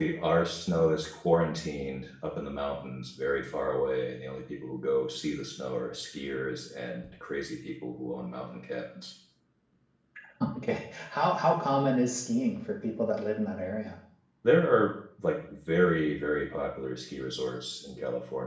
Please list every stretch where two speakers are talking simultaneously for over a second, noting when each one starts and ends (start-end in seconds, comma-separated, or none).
none